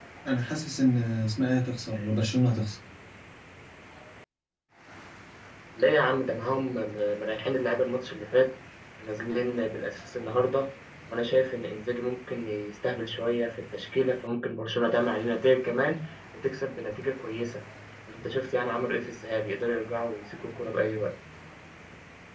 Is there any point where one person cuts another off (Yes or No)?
No